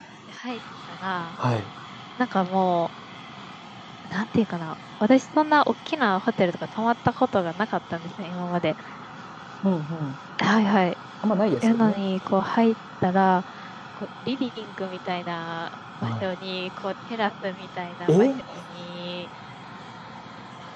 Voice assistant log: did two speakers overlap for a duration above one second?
No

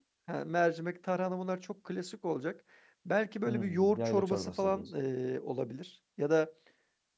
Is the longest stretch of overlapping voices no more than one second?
No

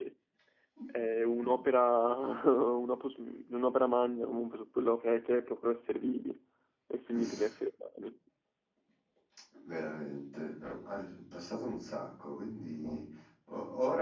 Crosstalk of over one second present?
No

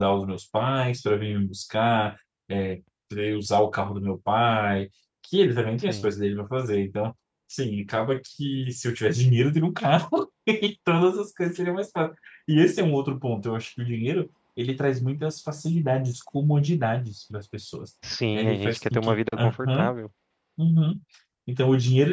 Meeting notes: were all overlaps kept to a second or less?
No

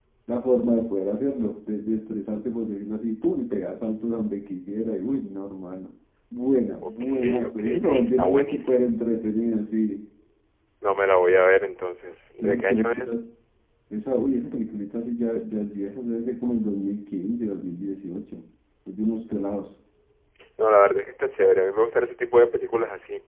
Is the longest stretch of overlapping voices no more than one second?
No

